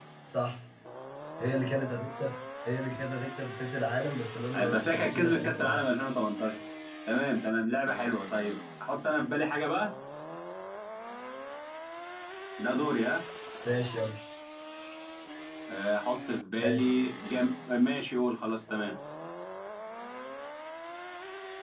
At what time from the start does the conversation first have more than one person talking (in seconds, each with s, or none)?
4.5 s